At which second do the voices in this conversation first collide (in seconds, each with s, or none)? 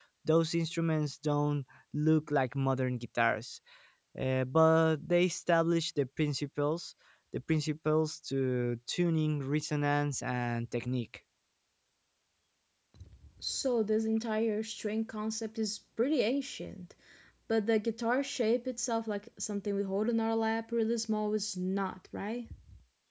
none